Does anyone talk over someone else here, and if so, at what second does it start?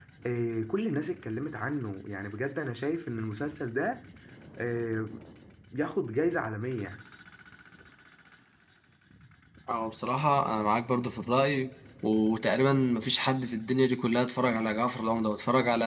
none

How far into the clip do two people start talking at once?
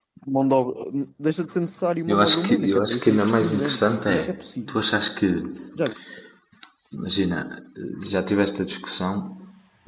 2.1 s

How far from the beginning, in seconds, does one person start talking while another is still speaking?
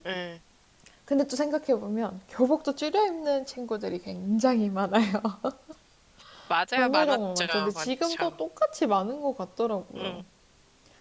6.8 s

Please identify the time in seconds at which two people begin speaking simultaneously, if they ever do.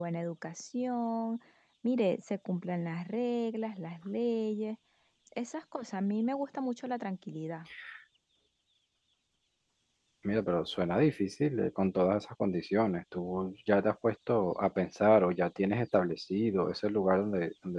none

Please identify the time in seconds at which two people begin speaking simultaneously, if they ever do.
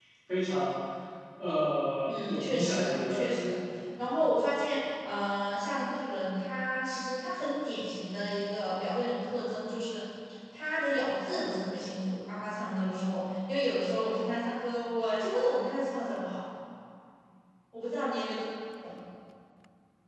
2.0 s

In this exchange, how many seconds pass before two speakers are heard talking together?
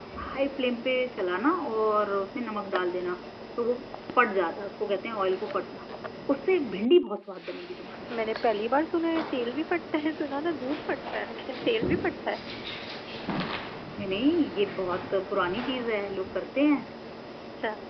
none

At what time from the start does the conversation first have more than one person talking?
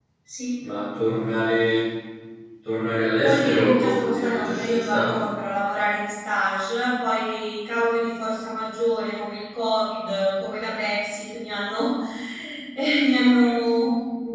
3.2 s

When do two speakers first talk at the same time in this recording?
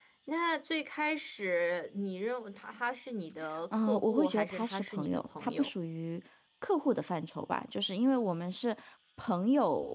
3.7 s

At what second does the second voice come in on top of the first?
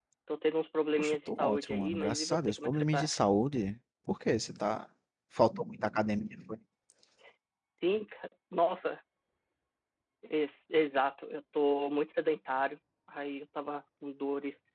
1.0 s

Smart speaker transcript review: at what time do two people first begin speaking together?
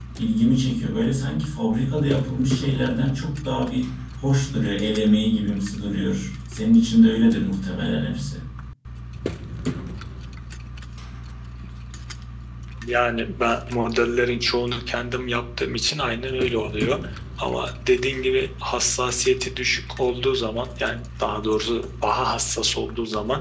none

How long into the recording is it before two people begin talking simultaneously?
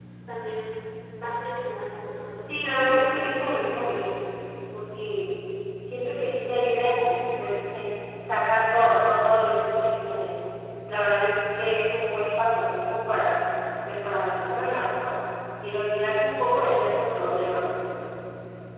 2.5 s

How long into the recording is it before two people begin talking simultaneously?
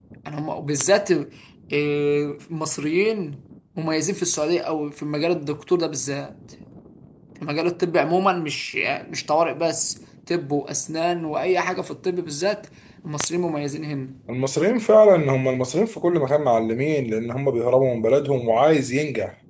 none

